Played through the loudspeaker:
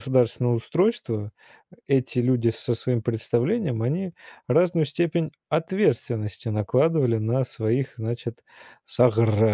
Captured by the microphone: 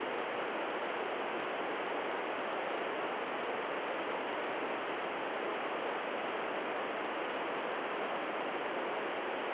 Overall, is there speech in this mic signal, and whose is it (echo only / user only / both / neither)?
neither